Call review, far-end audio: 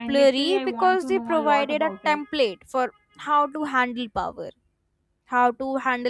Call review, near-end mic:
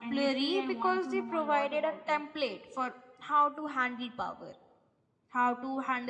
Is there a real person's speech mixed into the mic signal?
No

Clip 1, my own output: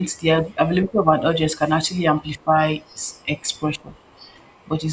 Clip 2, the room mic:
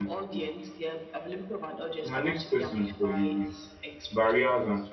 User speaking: Yes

